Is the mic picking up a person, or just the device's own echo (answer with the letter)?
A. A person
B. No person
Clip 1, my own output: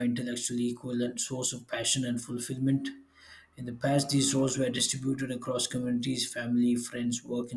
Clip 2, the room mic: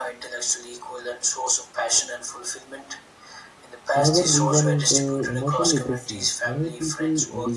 A